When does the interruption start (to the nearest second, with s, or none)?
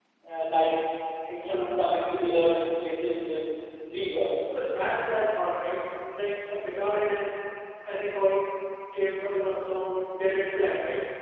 none